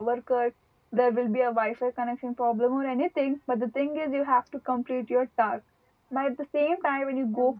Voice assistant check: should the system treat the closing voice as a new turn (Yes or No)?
No